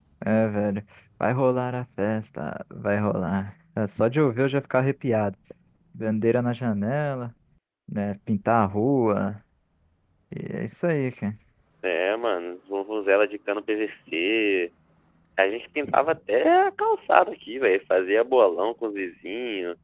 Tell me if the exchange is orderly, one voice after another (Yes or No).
Yes